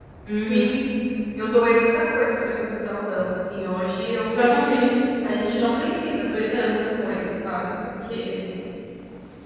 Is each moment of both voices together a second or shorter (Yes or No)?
Yes